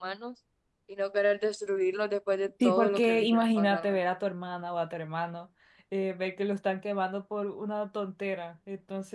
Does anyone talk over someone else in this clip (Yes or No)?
Yes